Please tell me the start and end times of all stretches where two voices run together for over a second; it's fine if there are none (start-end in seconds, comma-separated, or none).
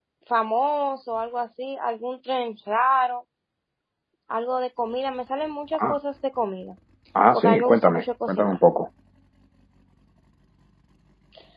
7.3-8.6